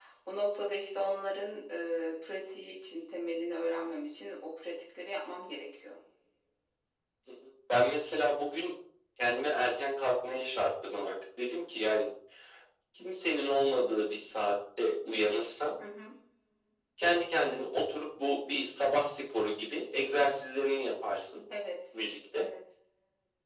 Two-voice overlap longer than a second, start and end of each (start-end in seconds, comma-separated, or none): none